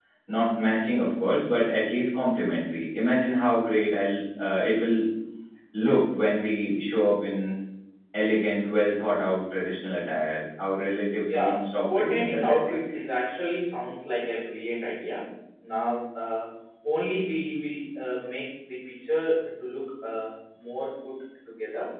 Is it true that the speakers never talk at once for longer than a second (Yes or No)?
No